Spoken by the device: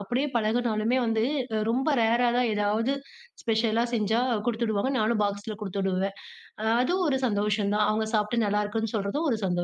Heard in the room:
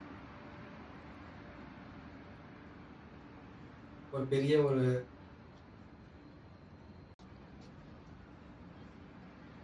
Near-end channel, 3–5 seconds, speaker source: user only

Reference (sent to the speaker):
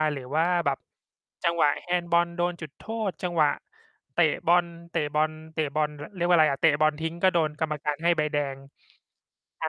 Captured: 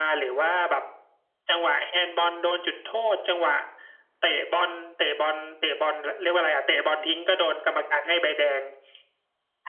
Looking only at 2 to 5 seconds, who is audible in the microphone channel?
echo only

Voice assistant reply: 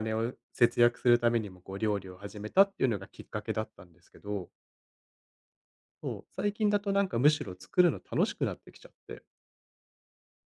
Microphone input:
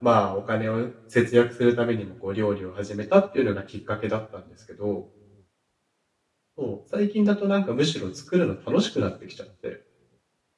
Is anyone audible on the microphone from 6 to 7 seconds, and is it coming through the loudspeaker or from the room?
echo only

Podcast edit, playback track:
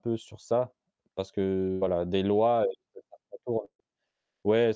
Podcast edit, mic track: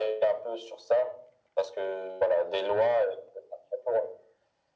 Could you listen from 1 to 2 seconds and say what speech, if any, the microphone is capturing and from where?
echo only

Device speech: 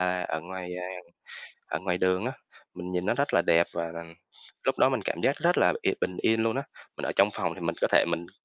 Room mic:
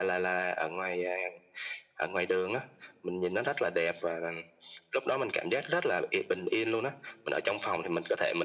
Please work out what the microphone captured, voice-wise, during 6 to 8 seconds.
echo only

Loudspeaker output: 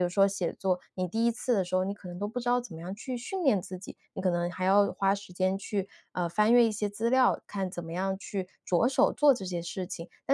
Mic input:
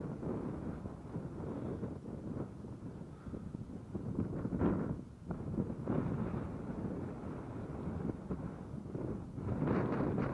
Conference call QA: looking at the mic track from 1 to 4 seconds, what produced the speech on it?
neither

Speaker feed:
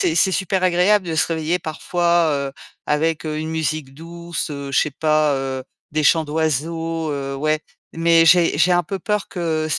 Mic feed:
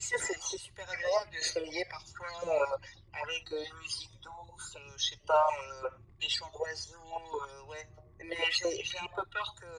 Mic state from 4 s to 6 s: echo only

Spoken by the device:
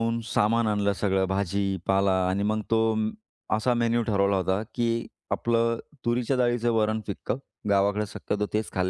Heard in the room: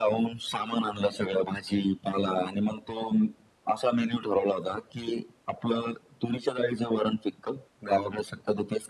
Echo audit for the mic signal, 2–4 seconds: echo only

